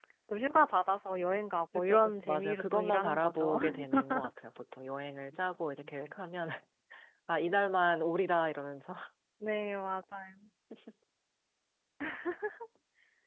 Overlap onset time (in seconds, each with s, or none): 1.7 s